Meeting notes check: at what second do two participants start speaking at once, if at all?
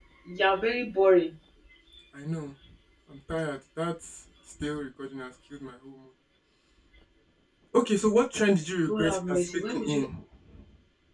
8.8 s

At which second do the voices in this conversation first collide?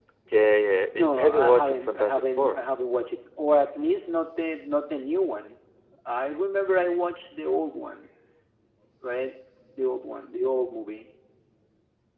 1.0 s

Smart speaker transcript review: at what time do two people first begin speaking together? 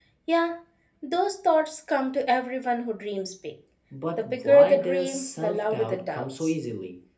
4.2 s

